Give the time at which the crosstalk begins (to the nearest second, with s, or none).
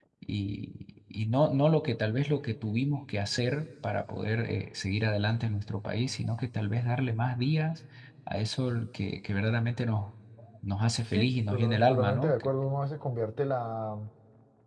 11 s